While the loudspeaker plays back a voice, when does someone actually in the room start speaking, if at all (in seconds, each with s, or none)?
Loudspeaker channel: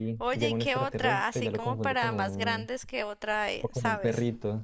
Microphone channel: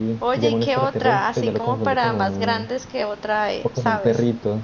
none